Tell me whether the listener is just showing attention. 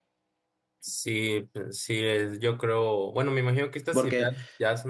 Yes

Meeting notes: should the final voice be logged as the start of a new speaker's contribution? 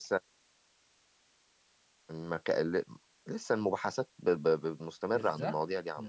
Yes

